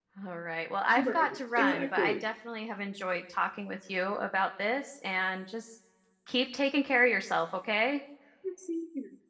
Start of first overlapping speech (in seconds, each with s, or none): 1.0 s